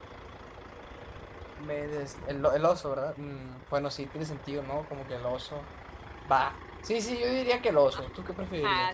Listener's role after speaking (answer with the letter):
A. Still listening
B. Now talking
B